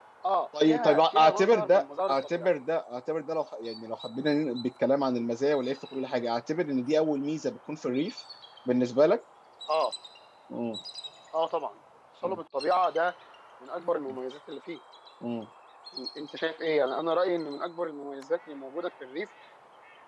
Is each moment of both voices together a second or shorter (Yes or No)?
No